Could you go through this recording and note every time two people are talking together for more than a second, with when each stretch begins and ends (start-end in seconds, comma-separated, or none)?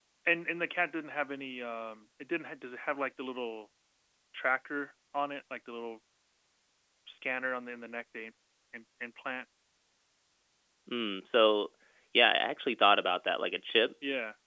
none